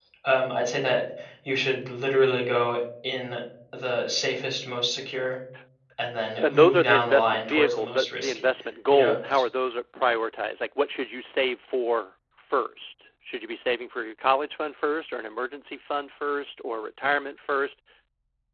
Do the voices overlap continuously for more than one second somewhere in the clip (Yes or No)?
Yes